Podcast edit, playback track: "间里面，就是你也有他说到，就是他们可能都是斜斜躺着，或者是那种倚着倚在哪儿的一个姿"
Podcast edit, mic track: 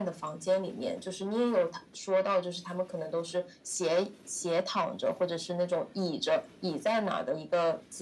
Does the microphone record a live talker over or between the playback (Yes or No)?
No